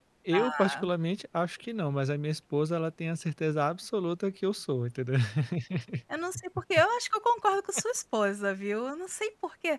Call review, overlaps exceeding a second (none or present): none